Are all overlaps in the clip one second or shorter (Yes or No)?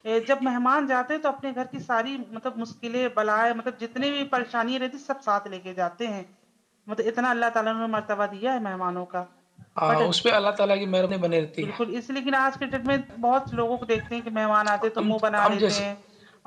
Yes